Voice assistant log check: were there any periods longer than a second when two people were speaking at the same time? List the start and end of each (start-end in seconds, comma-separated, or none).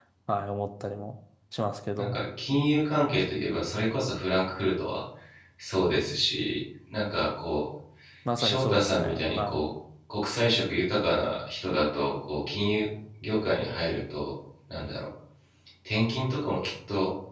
8.4-9.6